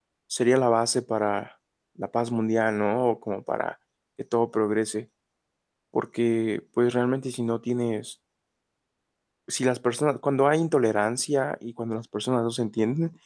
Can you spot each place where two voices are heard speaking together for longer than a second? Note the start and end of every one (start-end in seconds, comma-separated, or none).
none